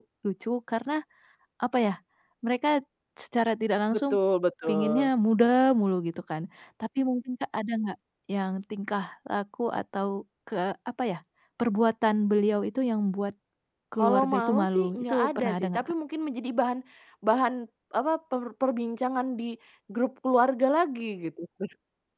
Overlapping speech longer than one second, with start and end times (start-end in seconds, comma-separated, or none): 14.0-15.9